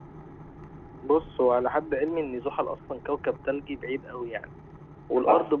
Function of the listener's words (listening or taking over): listening